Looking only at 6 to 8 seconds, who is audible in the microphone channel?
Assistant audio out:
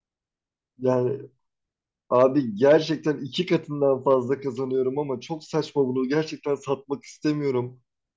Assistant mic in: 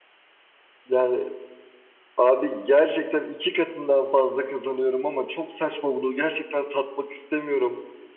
echo only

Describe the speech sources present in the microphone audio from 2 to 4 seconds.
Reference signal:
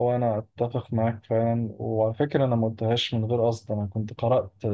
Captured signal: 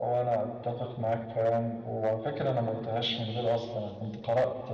echo only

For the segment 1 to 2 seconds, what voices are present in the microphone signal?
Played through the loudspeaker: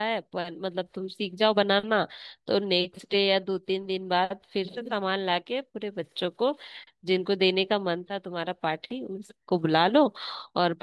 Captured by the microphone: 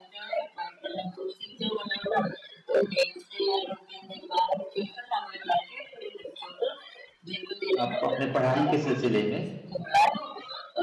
echo only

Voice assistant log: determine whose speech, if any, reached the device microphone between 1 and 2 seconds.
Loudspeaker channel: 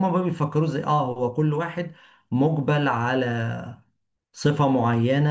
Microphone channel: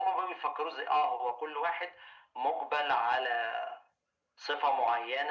echo only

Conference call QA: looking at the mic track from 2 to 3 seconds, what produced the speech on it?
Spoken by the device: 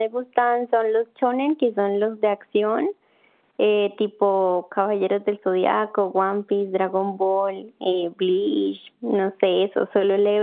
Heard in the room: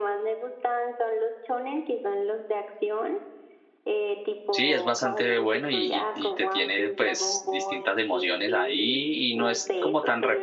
echo only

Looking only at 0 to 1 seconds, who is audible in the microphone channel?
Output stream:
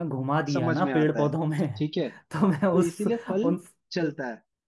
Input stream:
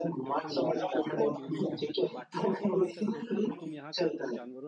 both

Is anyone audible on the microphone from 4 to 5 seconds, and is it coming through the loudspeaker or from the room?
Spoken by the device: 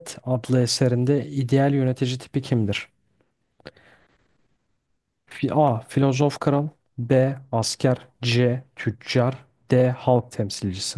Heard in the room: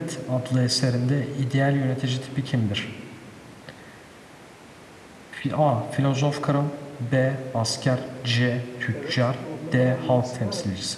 neither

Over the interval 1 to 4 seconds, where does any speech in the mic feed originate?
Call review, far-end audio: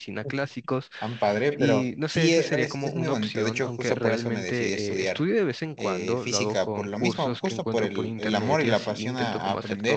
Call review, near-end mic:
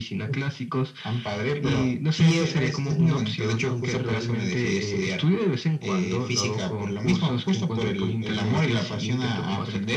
echo only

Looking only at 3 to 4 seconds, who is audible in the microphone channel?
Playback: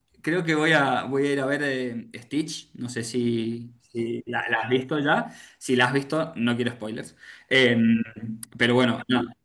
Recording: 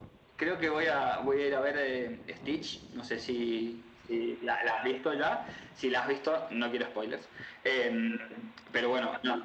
echo only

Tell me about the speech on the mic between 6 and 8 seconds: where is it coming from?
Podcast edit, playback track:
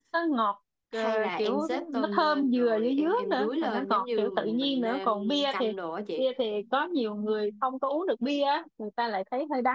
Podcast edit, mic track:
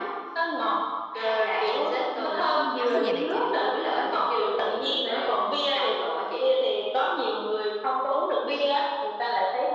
echo only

